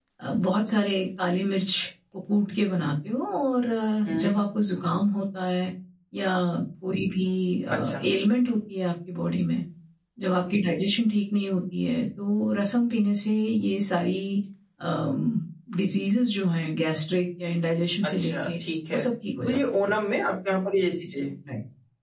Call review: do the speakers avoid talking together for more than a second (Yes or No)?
Yes